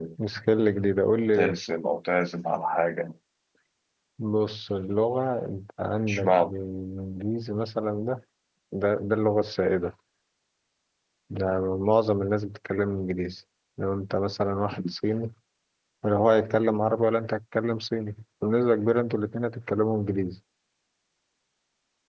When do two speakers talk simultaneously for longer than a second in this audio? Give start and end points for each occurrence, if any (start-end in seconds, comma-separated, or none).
none